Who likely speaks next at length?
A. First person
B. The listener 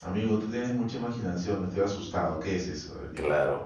B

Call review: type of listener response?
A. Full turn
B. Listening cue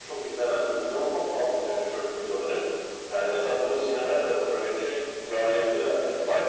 A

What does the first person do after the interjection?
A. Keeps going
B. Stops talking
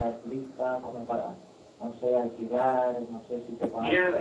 B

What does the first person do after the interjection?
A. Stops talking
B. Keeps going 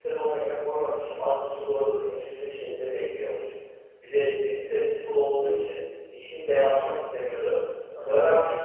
B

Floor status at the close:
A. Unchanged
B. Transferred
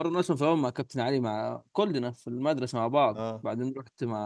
A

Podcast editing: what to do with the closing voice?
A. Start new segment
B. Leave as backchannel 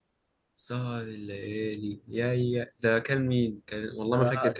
A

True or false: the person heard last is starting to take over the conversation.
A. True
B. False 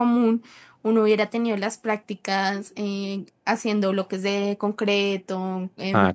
B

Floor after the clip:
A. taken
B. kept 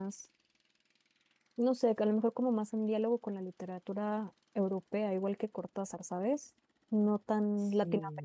B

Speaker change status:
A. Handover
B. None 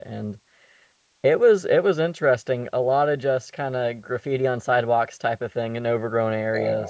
B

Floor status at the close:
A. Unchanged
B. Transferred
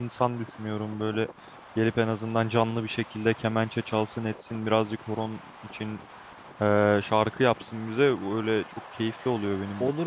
B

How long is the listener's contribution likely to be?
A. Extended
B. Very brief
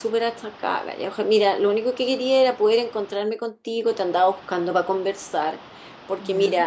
B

